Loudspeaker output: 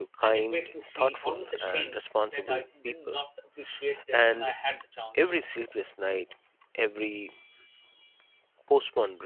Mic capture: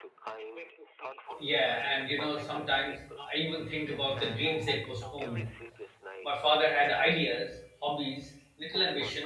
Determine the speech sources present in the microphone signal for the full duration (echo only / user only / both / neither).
both